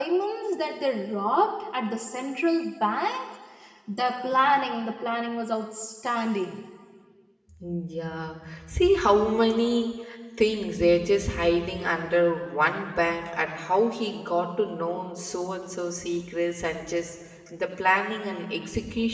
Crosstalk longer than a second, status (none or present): none